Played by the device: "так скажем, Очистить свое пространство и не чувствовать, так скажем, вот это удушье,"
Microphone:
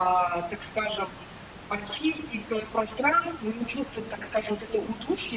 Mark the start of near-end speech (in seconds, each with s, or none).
none